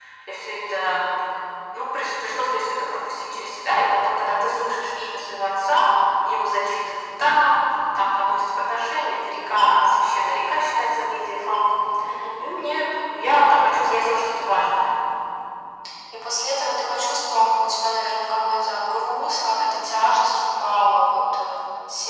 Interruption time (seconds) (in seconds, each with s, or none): none